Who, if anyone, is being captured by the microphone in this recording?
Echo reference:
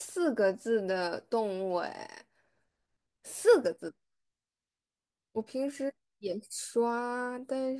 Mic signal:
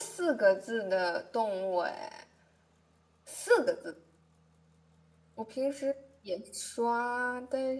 echo only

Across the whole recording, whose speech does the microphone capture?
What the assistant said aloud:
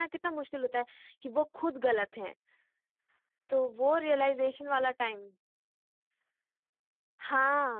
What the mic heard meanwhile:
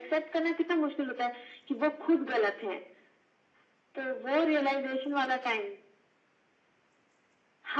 echo only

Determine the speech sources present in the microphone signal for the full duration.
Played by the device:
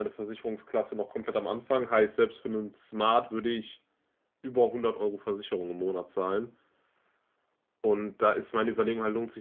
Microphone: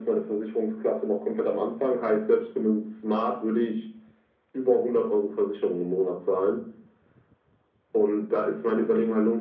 echo only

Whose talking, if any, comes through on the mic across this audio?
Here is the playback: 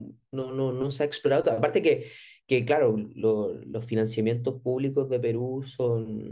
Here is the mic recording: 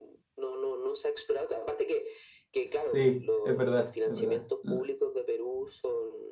both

